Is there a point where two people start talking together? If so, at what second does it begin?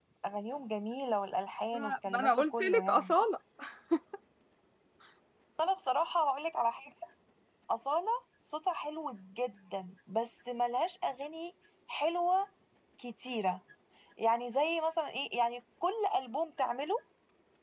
1.7 s

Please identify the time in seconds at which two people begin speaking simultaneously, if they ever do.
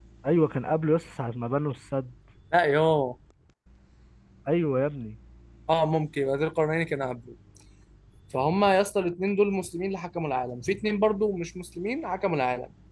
none

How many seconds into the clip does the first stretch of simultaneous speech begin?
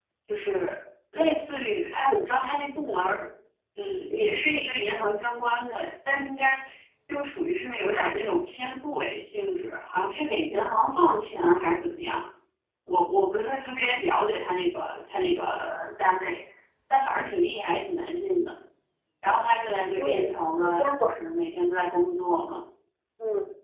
19.9 s

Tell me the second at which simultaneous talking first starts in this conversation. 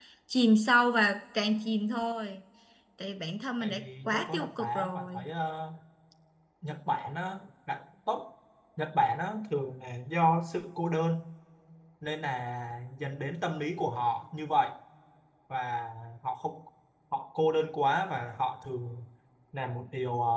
3.6 s

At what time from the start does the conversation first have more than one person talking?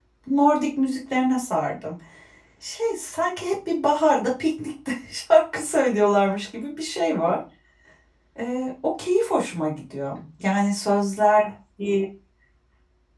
none

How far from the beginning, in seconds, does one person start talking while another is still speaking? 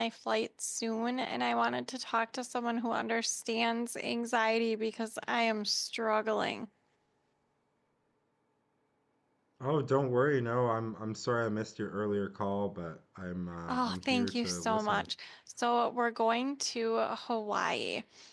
13.7 s

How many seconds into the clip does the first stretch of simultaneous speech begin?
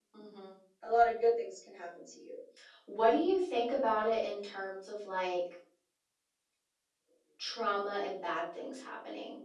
none

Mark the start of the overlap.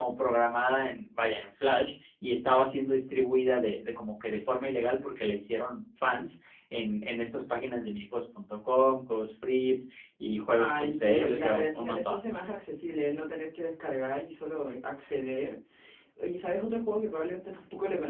10.6 s

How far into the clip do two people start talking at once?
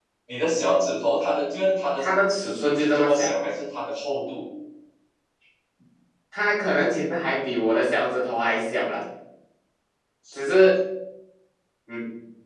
2.0 s

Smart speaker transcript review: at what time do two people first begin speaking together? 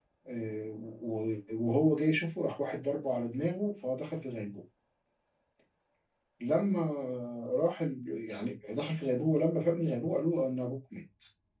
none

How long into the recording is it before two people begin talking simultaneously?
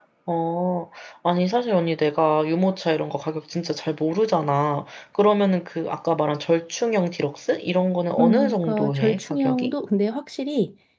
8.2 s

